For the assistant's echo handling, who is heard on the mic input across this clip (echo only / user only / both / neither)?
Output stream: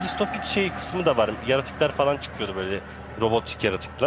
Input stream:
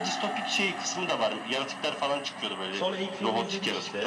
both